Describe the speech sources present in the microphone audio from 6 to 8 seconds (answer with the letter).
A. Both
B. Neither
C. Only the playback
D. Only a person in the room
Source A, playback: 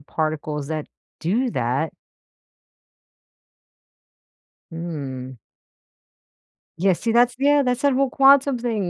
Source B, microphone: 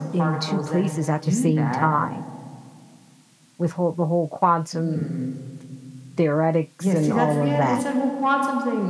A